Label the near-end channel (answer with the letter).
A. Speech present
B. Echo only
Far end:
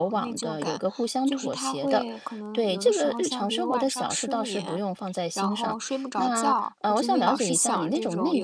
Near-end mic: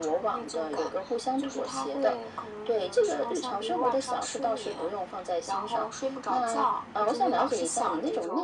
B